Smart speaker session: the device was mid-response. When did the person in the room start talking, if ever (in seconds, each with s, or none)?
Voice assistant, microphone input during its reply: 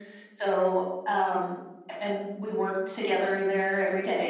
none